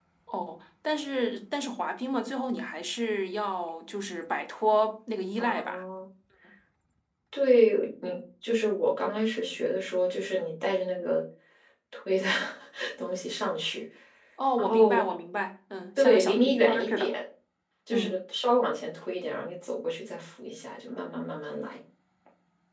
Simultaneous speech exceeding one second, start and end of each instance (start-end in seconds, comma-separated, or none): 16.0-17.2